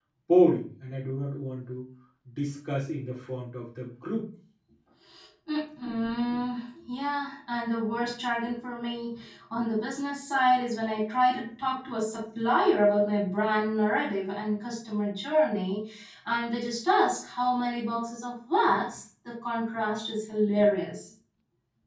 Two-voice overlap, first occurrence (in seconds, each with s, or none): none